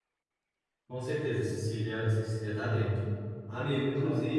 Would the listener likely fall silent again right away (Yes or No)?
Yes